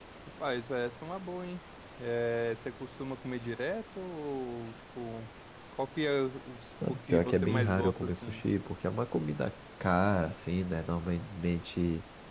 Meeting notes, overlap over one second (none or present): present